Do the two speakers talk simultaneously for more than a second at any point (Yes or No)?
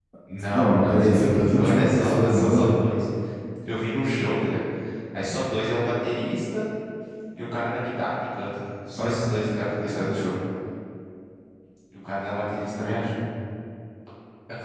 Yes